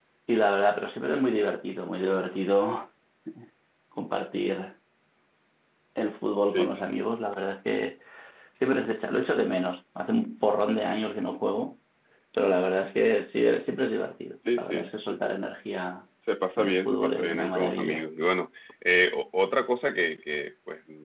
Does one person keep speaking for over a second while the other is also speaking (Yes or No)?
Yes